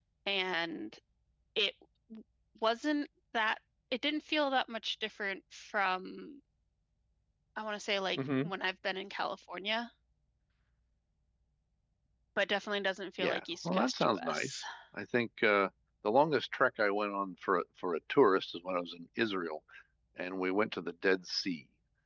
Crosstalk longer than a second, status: present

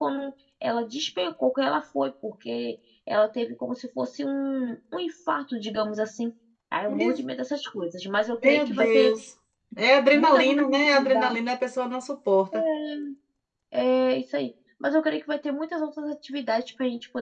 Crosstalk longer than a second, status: present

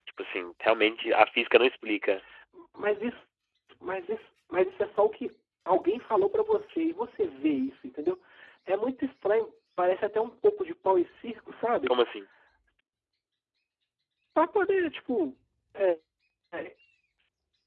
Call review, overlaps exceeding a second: none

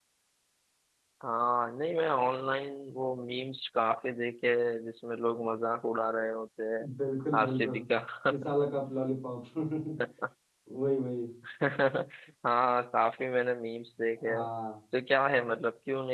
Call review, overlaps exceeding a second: none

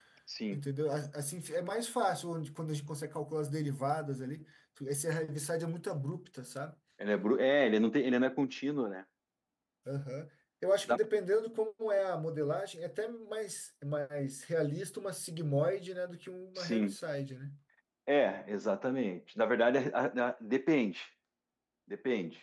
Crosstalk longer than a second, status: none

